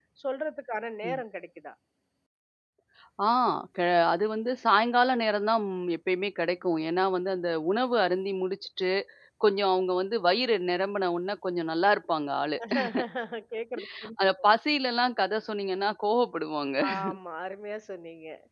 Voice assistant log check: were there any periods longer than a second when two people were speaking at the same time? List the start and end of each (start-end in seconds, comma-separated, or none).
none